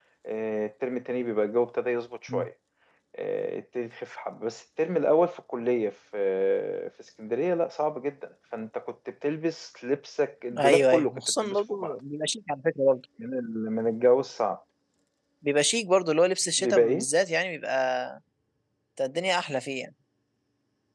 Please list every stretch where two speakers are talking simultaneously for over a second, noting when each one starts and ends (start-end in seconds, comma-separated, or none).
10.6-11.9